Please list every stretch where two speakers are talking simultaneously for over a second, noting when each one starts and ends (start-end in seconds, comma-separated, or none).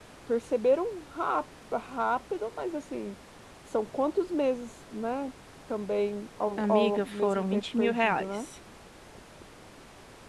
6.6-8.3